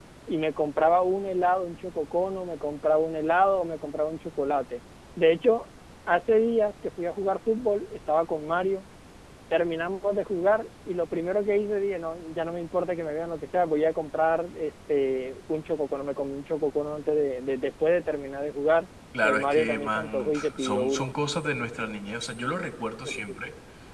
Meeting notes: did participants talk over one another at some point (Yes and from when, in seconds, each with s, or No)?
Yes, from 19.2 s